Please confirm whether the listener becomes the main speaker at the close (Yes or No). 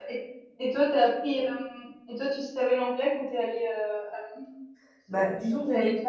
Yes